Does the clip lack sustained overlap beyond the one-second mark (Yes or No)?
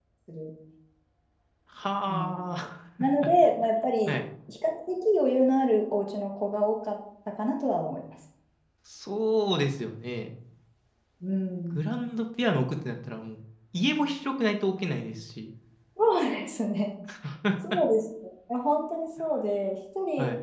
Yes